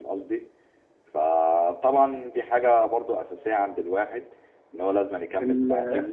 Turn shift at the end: Yes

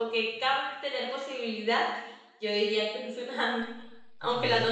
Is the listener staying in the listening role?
No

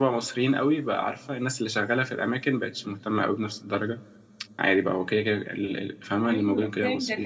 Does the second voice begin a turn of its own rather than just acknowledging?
Yes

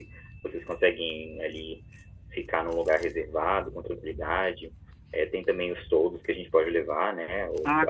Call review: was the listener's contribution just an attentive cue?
No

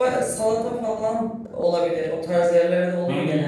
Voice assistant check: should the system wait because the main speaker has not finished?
No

